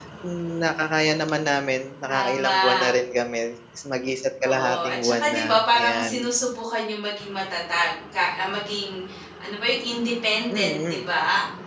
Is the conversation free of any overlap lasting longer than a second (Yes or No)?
No